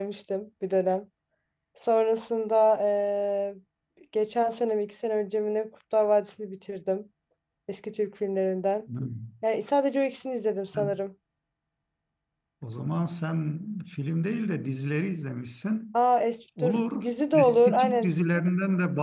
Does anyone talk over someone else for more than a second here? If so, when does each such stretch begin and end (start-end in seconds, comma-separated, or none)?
16.6-18.1